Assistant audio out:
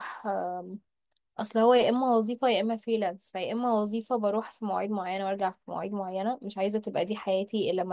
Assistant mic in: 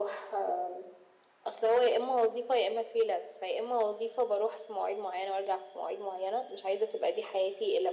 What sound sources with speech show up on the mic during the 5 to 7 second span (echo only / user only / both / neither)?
echo only